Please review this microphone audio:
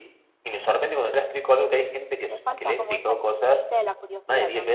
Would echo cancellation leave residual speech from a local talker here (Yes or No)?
Yes